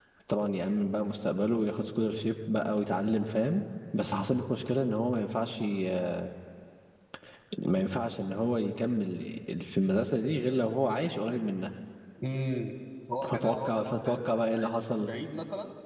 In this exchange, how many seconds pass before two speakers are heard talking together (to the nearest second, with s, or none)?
13 s